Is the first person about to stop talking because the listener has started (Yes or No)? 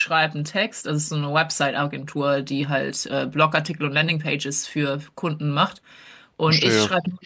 No